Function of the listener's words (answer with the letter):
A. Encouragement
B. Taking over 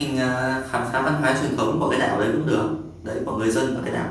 B